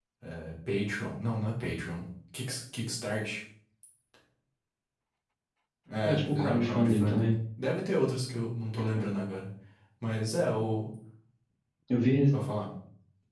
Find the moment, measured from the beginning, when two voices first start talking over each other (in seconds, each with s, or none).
6.0 s